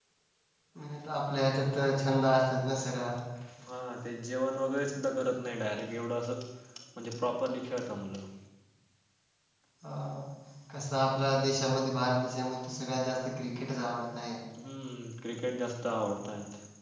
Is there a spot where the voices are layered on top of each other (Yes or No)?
No